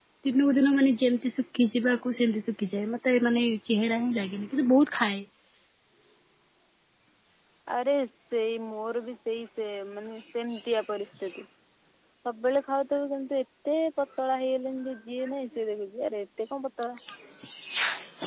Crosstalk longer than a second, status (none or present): none